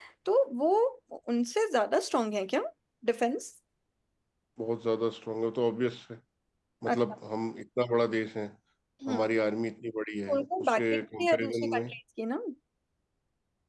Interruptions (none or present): present